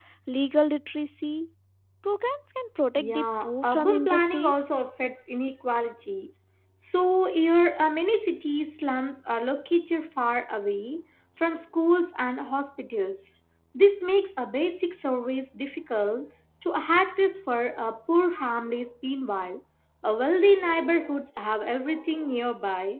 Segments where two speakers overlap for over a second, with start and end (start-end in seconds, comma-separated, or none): 3.0-4.6